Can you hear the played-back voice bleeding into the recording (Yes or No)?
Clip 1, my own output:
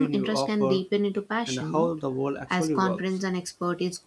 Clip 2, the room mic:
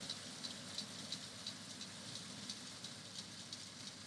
No